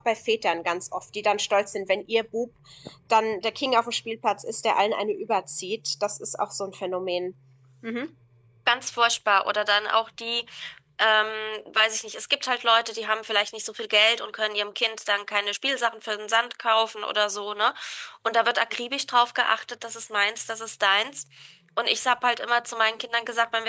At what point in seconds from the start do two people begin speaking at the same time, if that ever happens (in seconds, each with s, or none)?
none